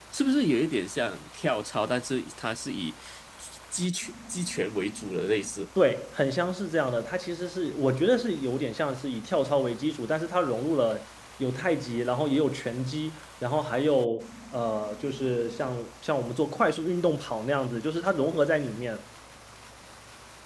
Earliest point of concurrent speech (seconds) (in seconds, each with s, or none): none